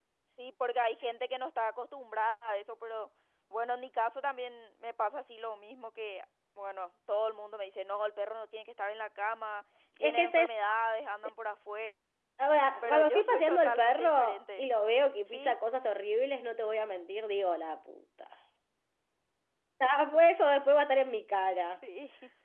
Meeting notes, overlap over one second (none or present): present